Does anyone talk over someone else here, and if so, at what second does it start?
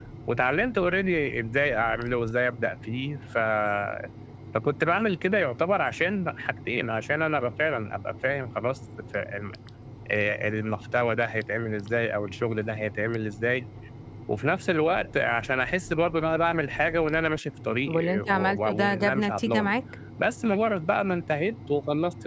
17.9 s

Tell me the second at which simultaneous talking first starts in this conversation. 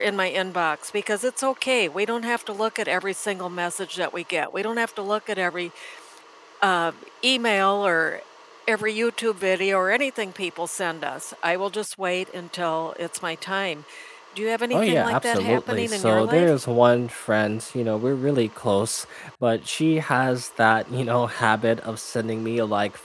14.7 s

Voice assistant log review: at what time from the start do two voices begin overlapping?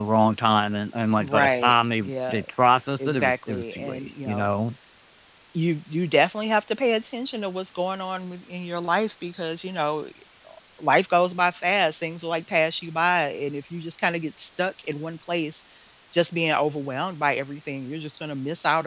1.2 s

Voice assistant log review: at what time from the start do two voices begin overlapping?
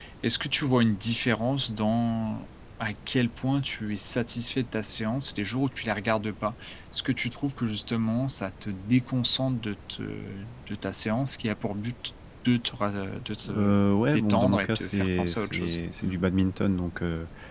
13.4 s

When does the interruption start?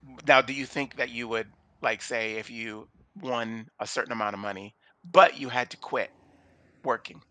none

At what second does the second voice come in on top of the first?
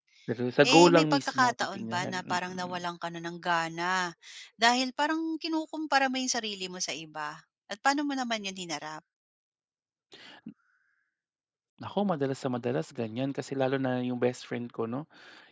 0.7 s

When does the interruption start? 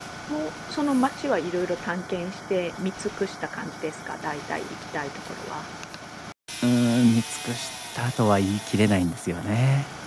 none

